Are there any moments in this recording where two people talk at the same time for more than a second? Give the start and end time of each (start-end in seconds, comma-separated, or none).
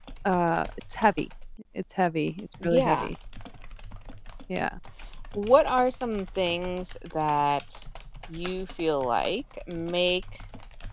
none